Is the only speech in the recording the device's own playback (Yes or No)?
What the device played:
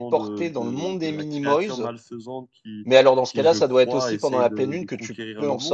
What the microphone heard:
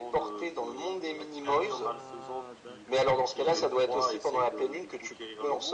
No